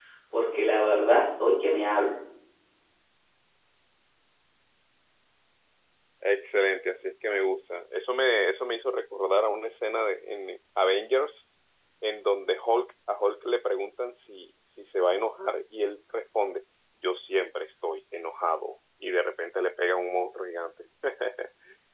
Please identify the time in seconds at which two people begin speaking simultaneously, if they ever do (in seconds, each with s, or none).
none